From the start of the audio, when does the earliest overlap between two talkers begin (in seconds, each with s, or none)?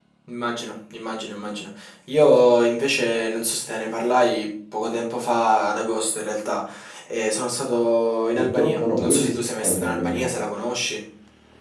8.3 s